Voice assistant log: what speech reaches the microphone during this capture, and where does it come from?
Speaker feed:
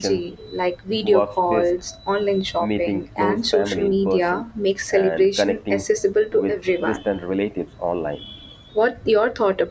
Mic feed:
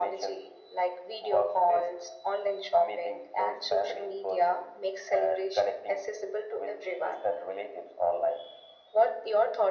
echo only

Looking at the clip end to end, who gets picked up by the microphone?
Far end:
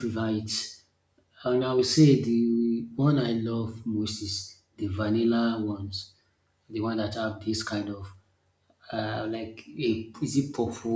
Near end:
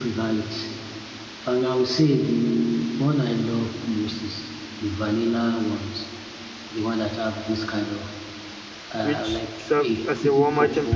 both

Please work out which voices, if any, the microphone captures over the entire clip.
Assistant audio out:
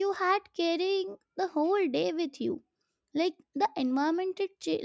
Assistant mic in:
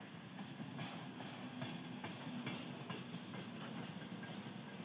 neither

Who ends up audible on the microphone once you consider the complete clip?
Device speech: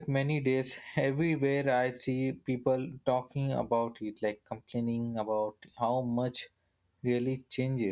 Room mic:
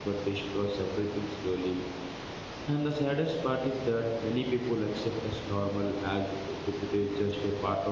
user only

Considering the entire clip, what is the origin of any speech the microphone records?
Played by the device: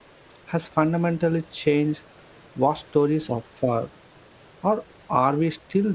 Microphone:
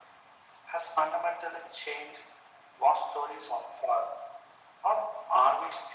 echo only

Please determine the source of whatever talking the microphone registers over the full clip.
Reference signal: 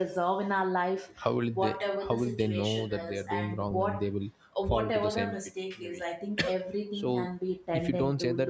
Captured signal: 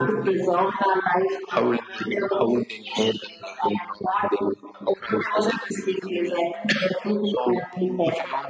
echo only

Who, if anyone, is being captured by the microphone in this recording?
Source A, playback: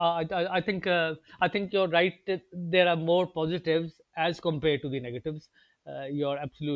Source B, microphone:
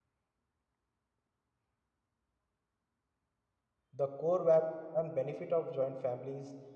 user only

